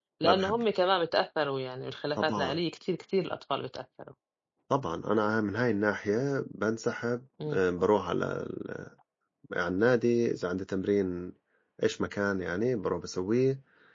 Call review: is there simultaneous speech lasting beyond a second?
No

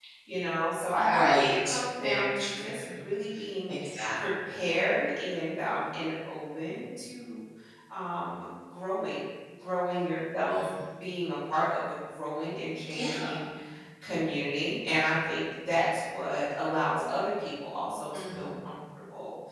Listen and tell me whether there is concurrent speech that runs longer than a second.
Yes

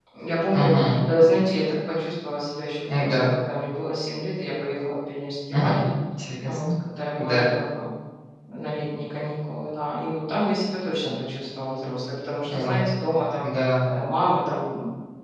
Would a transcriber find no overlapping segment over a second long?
Yes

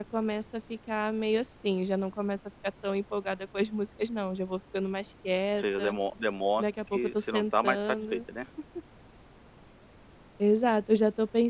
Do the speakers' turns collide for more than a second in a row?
Yes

